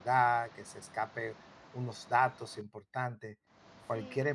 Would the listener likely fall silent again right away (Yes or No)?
Yes